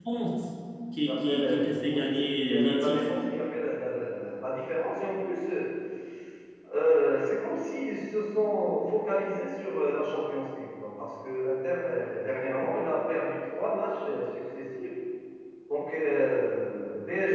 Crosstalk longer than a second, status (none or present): present